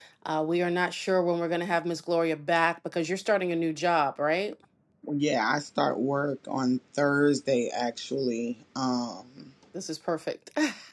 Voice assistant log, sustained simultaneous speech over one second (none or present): none